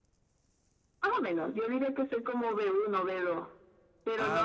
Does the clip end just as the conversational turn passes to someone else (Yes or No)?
No